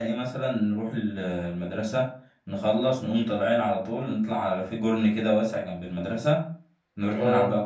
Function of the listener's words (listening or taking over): listening